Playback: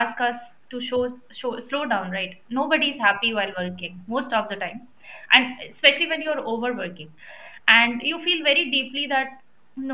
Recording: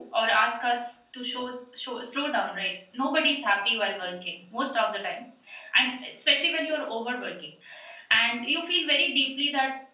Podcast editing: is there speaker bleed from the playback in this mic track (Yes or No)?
Yes